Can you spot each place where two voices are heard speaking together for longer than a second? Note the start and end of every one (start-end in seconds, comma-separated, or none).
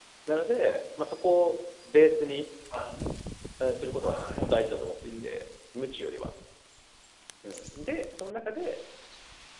4.0-5.3